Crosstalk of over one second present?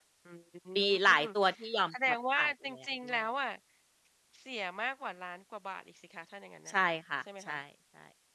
Yes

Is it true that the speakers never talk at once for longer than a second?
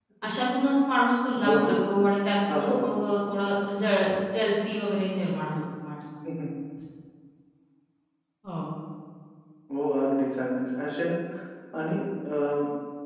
Yes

